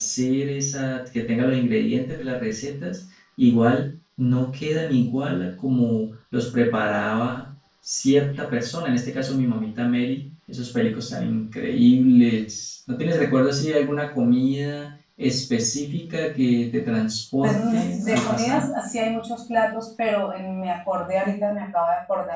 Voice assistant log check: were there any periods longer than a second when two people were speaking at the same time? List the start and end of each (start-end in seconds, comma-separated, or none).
17.4-18.7